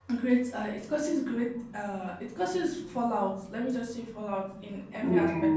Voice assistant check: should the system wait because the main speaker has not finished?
Yes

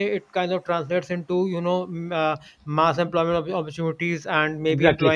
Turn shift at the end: No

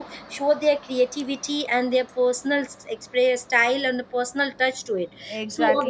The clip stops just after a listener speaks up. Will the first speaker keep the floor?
No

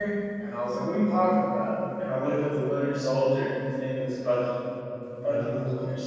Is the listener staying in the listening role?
Yes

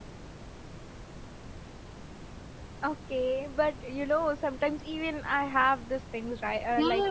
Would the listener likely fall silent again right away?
No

